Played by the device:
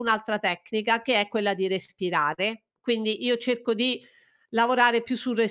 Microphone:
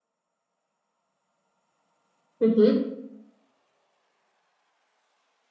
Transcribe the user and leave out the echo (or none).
Mh-mh.